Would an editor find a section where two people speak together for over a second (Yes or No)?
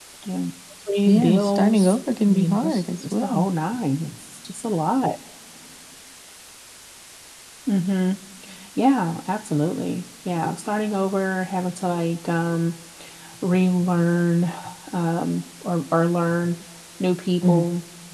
Yes